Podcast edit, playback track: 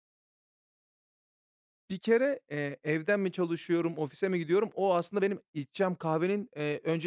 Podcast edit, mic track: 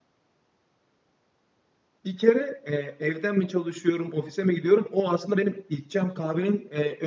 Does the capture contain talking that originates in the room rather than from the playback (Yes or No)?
No